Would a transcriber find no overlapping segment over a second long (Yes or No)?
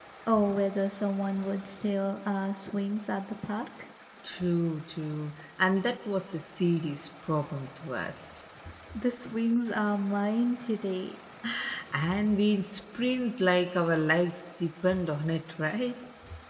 Yes